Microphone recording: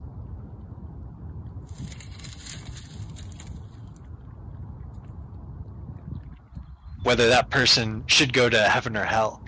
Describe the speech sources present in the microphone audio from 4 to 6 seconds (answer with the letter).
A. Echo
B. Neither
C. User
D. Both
B